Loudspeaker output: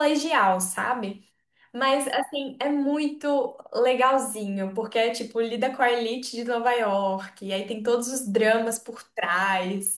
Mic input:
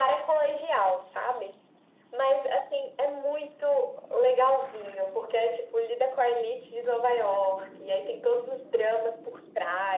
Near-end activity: none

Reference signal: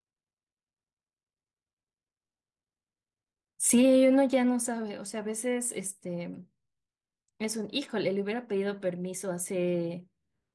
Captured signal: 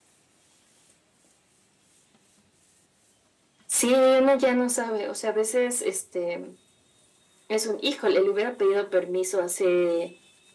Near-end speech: none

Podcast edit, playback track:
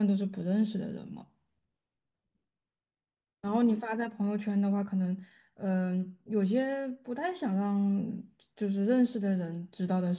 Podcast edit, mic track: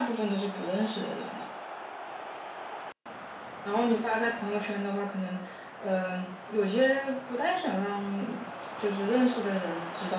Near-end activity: none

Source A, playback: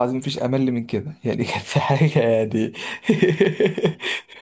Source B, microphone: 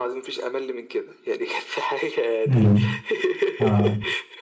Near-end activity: present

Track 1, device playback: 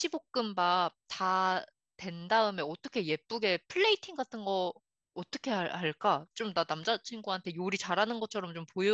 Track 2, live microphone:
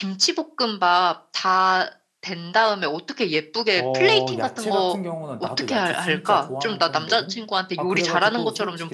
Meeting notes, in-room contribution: present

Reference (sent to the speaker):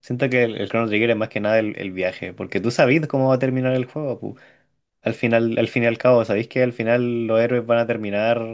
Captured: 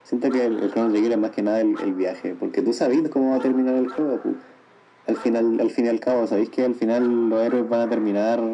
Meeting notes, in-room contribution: none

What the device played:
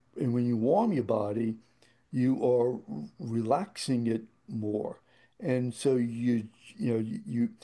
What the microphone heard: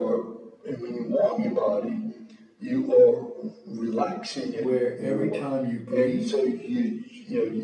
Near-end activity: present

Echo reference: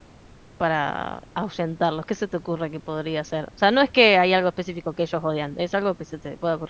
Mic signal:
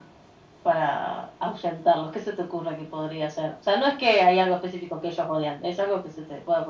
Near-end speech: none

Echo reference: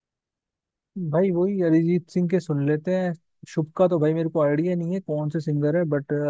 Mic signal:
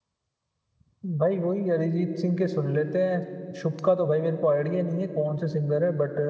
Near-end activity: none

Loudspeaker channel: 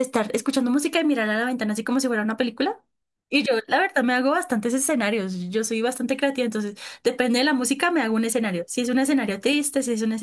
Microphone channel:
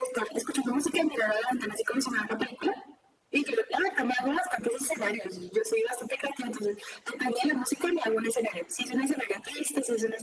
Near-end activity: none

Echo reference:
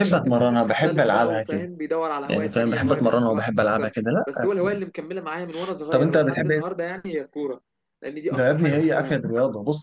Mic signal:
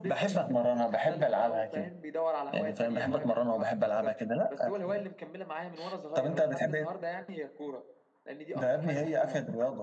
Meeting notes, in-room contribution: none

